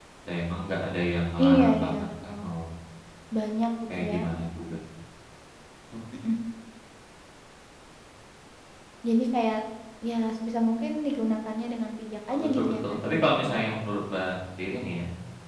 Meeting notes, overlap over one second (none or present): present